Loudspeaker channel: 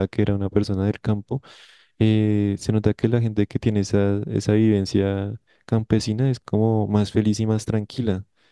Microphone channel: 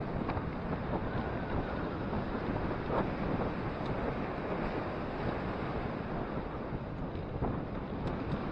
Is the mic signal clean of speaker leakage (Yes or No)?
Yes